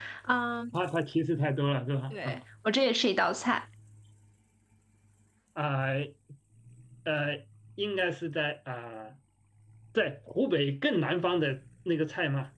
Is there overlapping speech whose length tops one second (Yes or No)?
No